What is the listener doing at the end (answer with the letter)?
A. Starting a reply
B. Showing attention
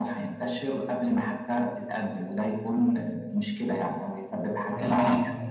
A